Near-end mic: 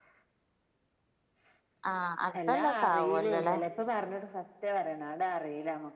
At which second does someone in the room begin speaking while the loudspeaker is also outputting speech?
1.9 s

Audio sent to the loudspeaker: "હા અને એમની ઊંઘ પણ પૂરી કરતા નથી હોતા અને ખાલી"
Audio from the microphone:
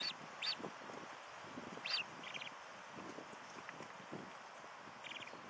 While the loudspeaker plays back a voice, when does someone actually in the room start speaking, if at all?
none

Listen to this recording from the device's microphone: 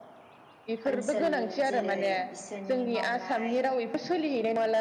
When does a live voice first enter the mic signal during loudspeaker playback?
0.9 s

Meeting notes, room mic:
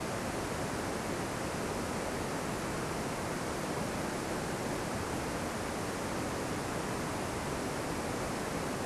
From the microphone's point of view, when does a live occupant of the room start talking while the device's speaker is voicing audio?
none

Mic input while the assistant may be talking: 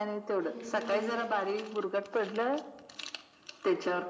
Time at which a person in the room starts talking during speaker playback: 0.4 s

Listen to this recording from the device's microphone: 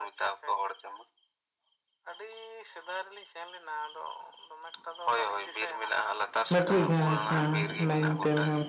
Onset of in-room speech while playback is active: 6.5 s

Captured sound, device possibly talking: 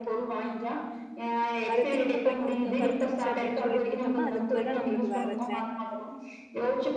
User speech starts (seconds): 1.7 s

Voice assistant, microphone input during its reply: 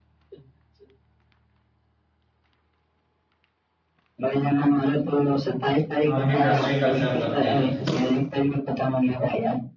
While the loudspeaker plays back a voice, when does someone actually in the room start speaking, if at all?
6.0 s

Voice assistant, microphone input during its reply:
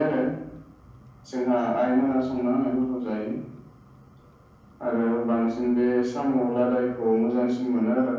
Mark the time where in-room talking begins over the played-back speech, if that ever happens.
none

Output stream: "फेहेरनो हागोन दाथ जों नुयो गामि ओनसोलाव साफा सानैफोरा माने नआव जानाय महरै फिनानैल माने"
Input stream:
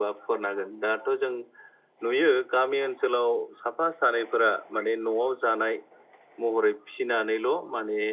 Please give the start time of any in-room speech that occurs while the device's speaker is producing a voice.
none

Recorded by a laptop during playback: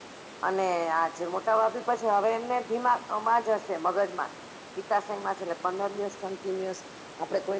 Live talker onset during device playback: none

